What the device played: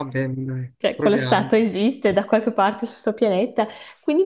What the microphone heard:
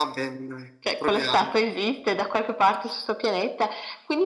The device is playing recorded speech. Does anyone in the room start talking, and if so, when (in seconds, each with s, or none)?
none